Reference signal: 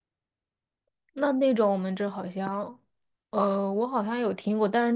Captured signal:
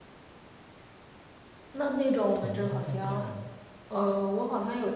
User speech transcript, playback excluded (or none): 统一都在第二楼，